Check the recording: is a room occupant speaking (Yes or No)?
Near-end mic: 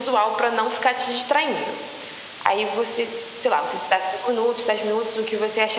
No